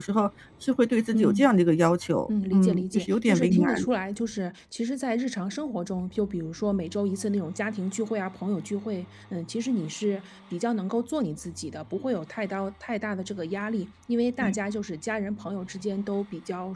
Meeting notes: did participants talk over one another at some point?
Yes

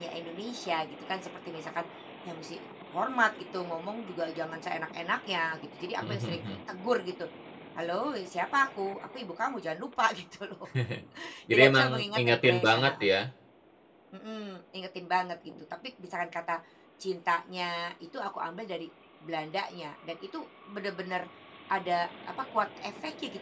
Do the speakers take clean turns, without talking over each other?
No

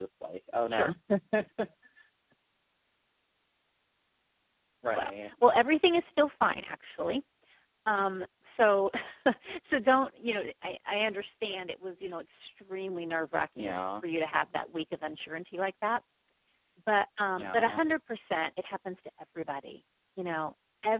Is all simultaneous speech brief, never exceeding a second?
Yes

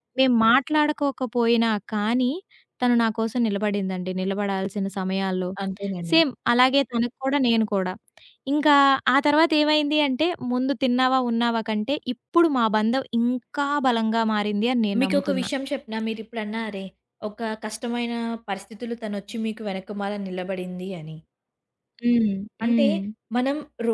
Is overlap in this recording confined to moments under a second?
Yes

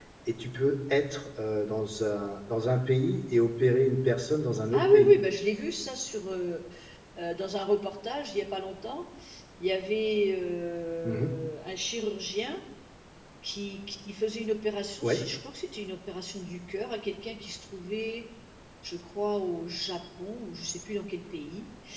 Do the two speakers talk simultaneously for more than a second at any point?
No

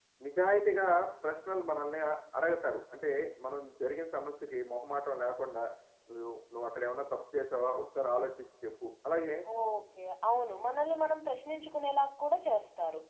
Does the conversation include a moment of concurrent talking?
No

